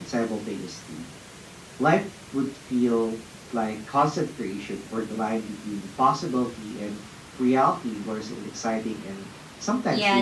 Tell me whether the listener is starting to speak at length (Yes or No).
Yes